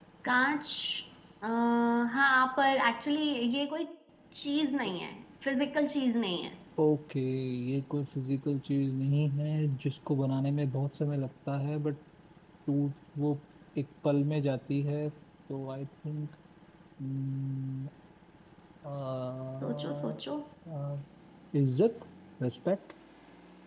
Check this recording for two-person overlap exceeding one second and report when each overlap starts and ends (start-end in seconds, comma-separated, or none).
none